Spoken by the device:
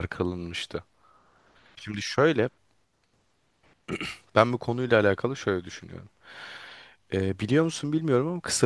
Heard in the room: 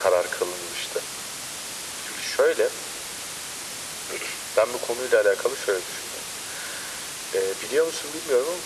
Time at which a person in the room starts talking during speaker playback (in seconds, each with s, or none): none